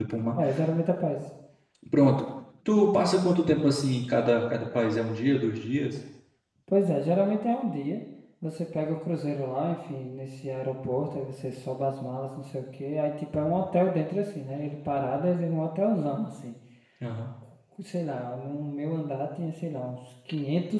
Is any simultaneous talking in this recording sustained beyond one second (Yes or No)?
No